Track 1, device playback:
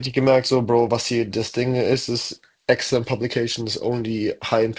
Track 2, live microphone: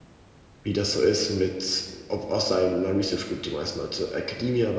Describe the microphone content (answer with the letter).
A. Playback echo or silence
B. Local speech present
B